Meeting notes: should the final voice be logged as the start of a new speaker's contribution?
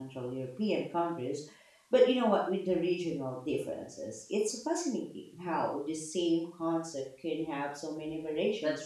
Yes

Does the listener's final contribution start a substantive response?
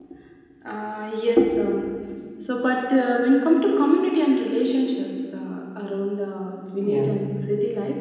No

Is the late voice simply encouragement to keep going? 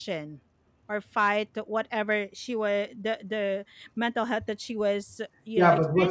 No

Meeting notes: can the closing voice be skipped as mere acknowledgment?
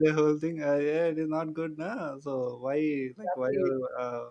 Yes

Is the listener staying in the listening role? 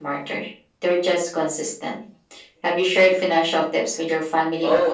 No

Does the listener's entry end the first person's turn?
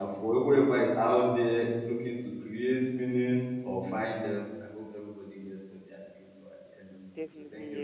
Yes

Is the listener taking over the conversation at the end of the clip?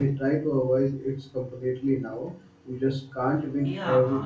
Yes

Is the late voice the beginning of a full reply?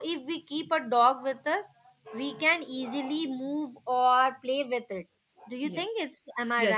Yes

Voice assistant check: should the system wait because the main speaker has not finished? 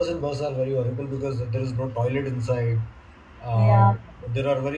Yes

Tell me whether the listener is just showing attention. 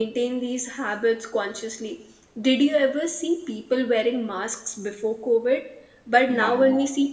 Yes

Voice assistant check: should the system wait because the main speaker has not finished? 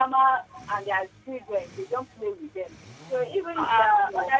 Yes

